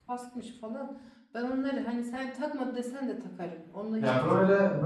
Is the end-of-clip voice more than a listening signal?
Yes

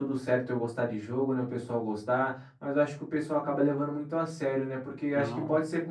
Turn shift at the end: No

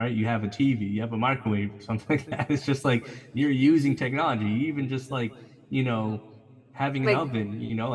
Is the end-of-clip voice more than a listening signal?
No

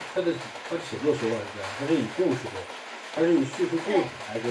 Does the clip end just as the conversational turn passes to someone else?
No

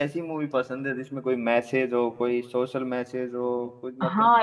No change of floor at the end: No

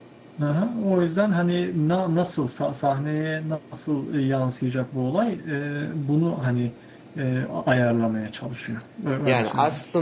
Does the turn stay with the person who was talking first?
No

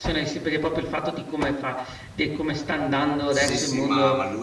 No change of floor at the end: No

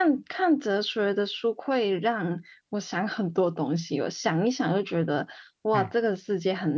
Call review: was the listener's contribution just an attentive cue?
Yes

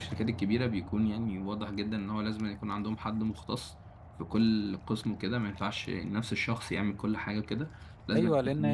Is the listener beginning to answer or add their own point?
Yes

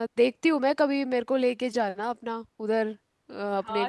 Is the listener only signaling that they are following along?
No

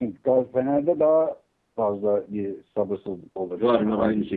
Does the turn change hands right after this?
Yes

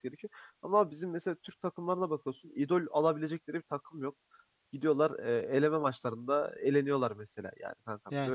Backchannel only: Yes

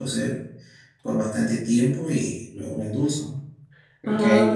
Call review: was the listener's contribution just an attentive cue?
Yes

